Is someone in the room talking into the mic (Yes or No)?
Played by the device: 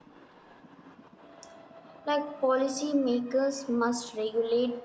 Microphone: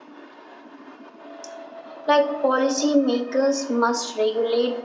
No